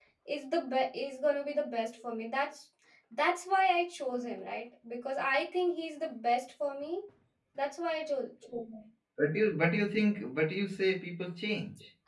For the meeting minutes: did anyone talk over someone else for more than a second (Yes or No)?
No